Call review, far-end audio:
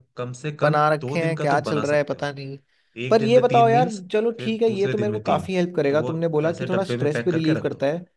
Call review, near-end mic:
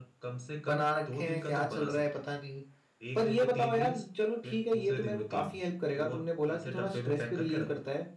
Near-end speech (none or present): none